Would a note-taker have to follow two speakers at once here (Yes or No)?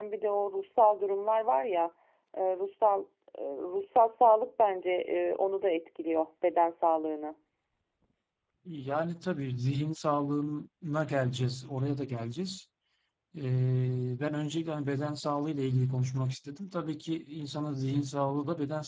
No